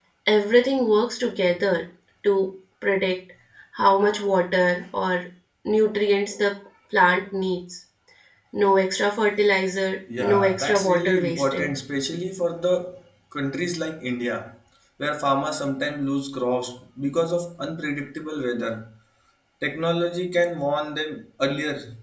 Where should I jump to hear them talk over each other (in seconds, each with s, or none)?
10.1 s